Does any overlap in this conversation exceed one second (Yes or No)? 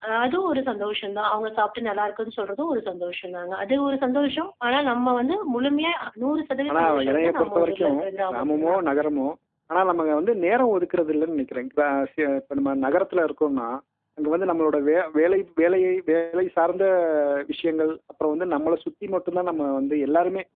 Yes